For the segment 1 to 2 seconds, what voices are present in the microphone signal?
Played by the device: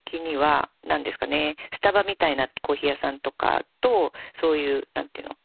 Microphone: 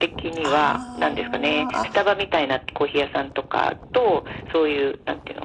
both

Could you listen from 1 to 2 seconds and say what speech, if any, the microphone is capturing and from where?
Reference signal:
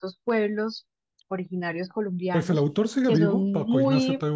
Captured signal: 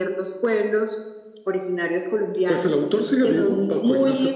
echo only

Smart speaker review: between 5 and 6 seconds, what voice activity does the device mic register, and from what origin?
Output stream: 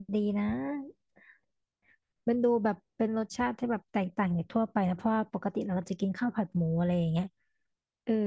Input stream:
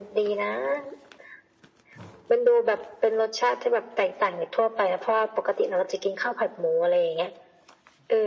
echo only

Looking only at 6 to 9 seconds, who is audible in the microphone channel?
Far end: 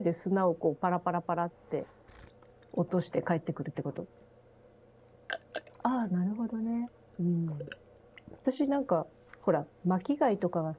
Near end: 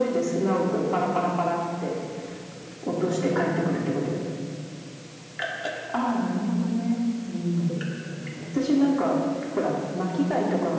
echo only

